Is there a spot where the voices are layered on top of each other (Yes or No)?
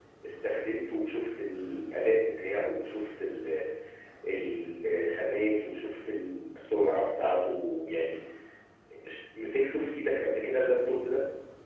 No